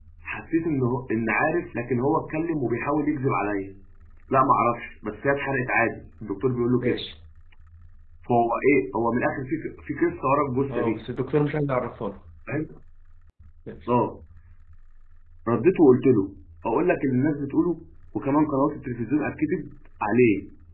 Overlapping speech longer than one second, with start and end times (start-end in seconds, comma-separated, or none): none